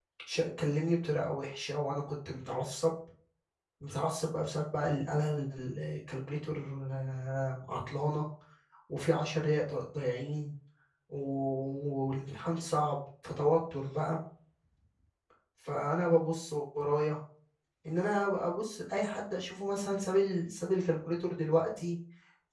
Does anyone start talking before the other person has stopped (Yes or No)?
No